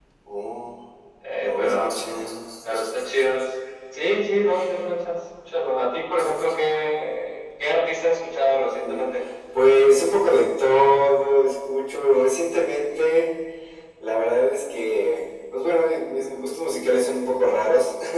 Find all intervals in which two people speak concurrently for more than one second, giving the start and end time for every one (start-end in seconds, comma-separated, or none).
none